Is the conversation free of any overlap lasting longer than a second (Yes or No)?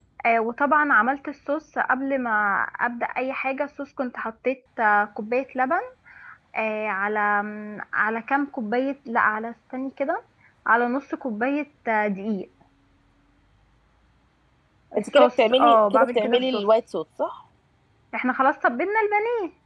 No